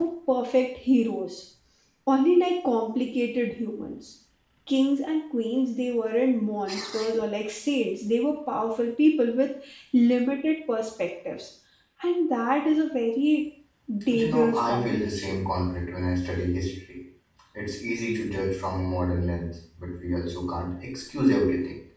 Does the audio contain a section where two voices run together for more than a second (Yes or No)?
Yes